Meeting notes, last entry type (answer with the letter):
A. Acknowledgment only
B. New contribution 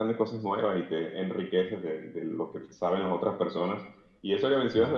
A